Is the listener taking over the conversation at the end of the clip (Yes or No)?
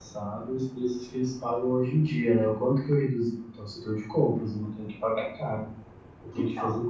No